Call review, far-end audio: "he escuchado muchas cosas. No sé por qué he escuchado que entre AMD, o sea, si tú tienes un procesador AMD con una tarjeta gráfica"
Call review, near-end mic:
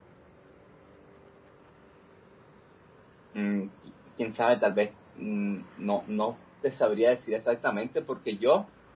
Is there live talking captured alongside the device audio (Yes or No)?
Yes